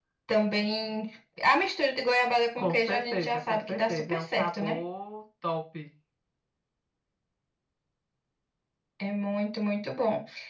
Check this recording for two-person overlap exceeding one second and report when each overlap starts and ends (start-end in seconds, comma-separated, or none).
2.6-4.8